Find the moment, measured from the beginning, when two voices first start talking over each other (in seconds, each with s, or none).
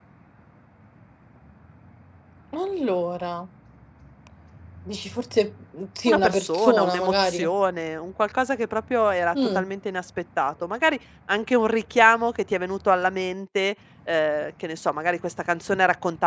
6.1 s